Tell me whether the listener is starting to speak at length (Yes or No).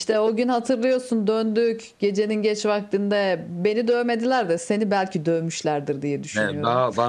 Yes